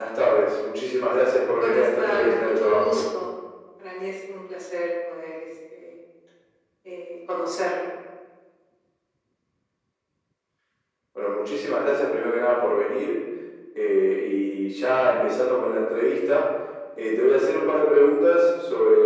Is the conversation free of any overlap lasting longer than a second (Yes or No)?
No